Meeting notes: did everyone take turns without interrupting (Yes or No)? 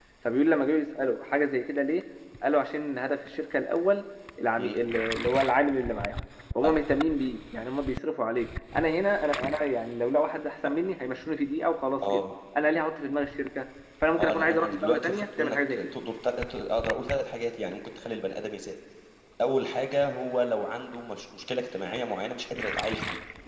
No